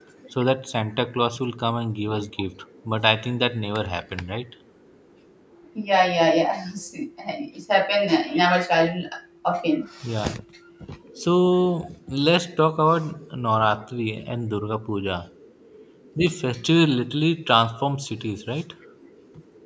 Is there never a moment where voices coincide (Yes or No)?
Yes